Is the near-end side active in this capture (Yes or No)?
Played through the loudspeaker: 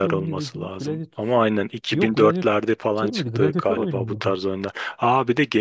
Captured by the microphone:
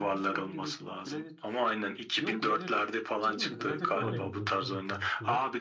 Yes